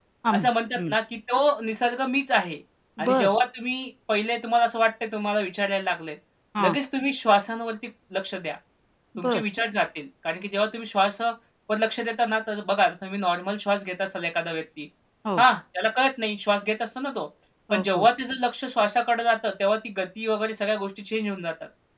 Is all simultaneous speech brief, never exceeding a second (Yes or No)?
Yes